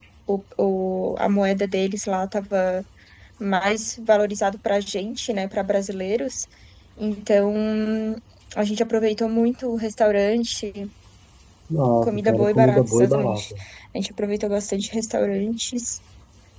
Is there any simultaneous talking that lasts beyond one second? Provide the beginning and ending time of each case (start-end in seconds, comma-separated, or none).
12.0-13.4